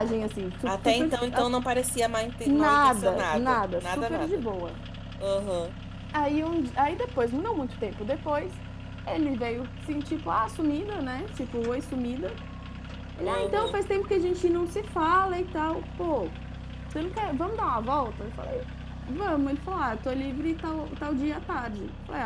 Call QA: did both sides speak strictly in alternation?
No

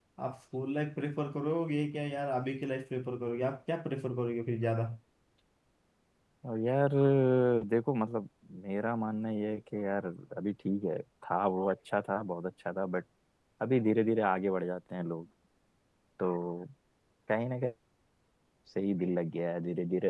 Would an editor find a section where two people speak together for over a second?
No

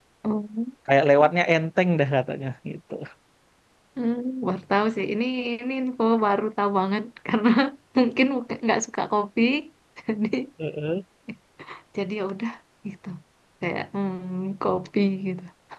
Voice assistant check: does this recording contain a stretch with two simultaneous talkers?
No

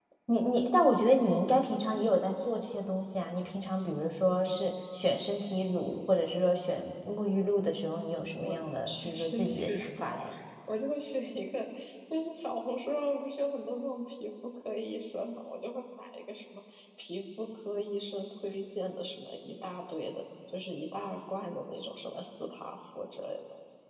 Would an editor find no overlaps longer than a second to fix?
No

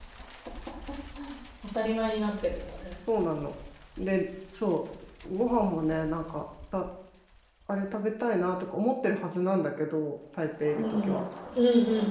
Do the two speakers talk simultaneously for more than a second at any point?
No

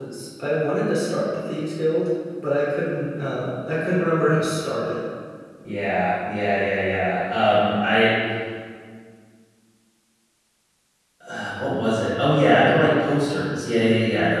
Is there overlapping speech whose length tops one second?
No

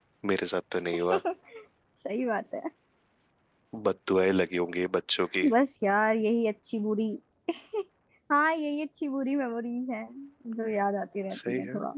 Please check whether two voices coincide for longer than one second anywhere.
No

